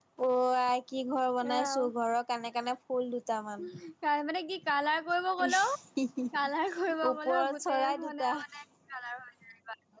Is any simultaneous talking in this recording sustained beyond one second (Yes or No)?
Yes